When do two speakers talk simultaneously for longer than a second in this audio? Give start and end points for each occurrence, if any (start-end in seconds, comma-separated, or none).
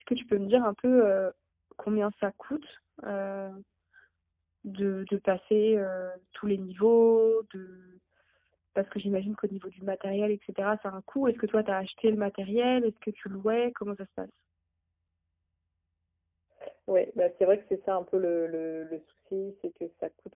none